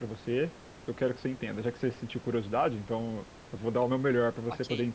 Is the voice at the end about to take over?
Yes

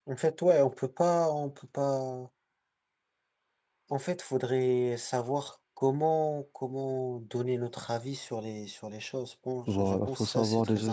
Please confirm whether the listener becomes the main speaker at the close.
Yes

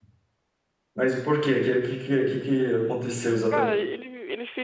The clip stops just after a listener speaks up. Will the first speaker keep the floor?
No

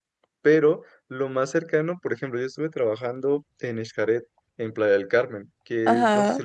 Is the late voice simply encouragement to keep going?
Yes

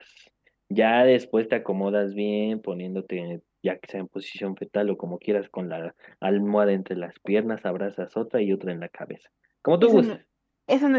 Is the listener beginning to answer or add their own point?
Yes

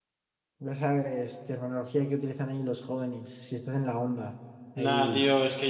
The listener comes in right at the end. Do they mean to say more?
Yes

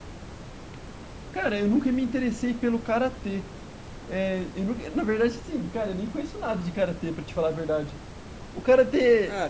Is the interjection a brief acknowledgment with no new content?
Yes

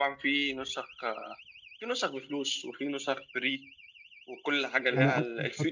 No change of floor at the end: No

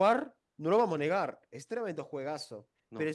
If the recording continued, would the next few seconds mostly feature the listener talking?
No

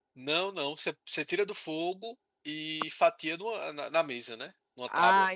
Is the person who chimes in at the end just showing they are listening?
No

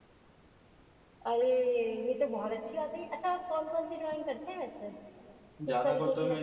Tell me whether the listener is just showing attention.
No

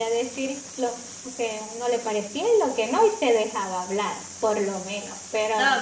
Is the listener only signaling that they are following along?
No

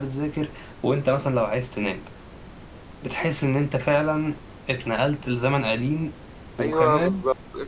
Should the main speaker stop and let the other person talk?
Yes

